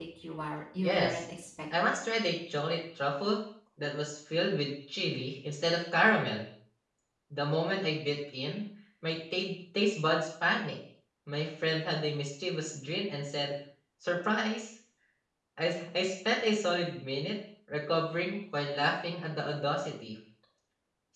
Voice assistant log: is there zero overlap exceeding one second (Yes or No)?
Yes